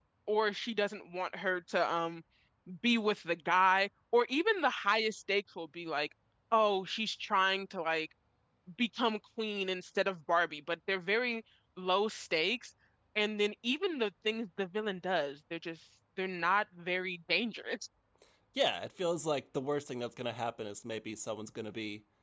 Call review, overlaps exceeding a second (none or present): none